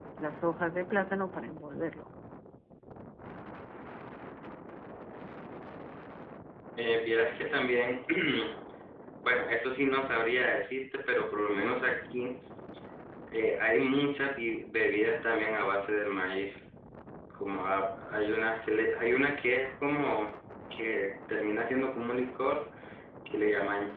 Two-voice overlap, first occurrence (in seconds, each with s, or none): none